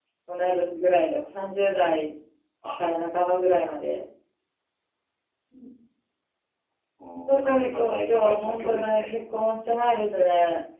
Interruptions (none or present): present